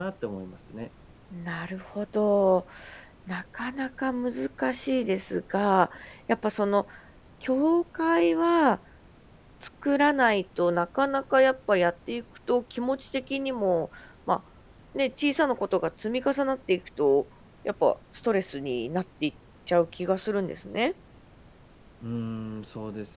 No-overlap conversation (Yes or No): Yes